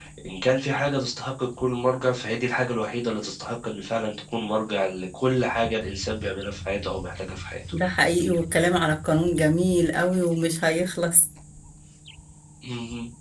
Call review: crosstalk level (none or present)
none